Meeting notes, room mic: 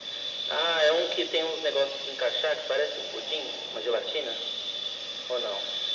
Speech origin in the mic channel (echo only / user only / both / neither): echo only